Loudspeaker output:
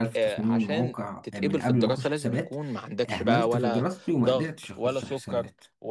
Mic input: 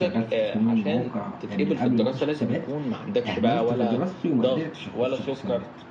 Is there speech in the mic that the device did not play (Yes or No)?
No